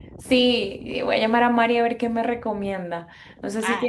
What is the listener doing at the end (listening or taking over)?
listening